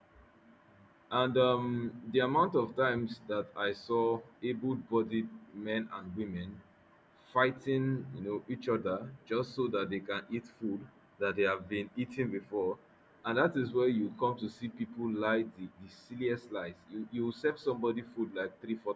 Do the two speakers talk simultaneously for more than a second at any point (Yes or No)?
No